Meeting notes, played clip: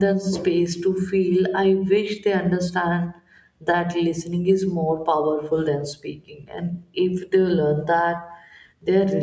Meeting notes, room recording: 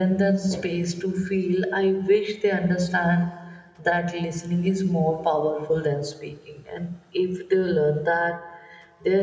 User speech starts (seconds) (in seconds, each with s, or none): none